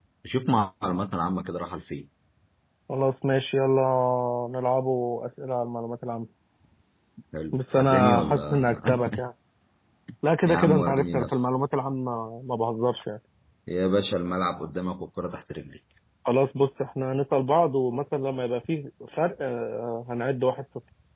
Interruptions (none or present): present